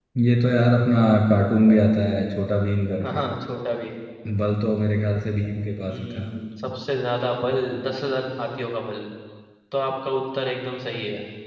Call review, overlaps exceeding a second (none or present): none